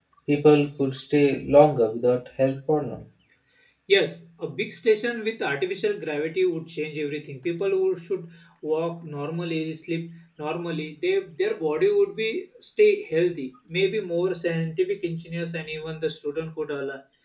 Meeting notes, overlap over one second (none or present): none